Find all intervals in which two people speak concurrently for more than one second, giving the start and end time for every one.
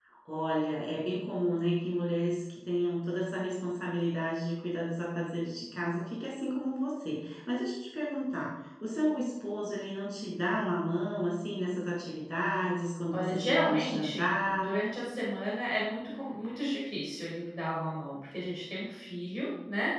13.1-14.7

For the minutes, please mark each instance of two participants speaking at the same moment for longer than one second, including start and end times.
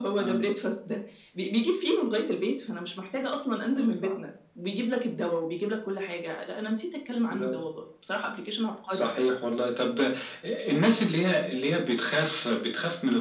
none

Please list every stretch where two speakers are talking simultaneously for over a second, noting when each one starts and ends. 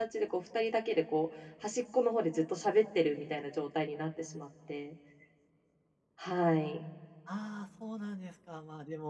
none

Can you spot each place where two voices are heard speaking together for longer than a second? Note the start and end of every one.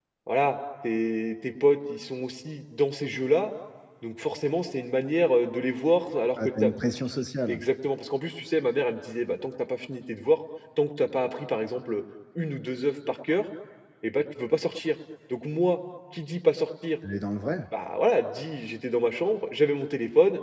none

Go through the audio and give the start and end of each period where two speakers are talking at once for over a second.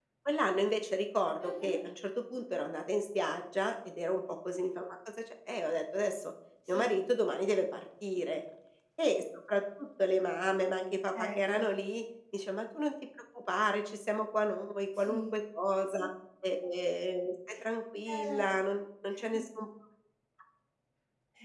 none

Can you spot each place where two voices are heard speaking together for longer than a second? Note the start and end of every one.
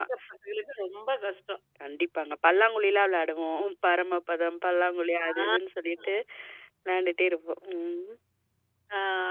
none

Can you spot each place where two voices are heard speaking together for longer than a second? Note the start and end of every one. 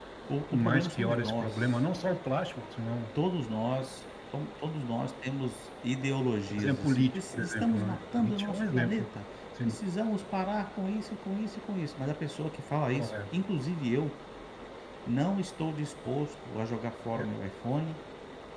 0.5-1.9, 6.5-9.0

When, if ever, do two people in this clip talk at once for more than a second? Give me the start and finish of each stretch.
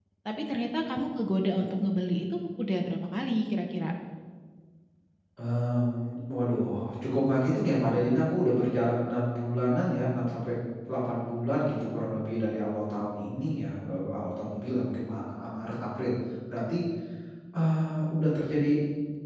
none

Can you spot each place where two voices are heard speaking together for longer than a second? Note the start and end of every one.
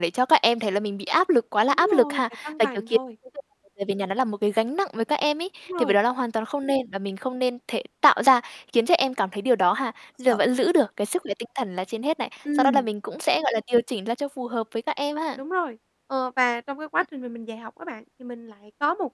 1.7-3.0

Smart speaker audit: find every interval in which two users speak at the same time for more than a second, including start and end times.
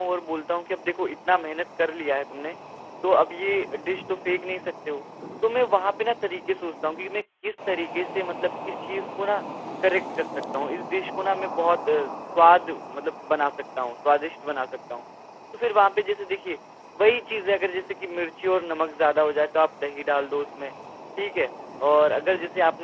none

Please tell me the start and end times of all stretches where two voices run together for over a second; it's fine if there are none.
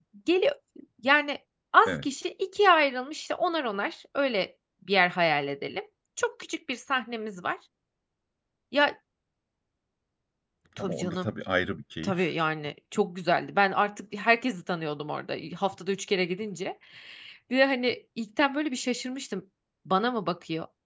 none

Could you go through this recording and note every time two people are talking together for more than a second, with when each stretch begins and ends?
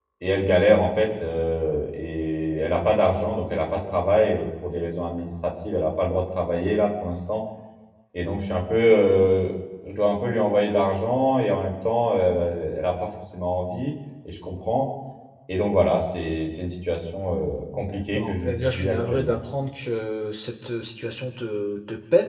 17.7-19.4

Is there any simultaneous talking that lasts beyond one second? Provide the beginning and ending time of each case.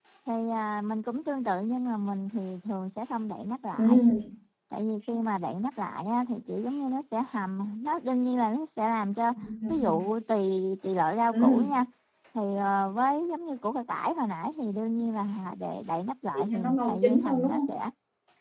16.3-17.6

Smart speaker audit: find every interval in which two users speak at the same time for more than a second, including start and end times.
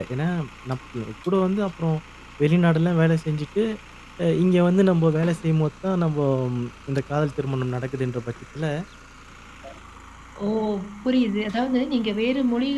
none

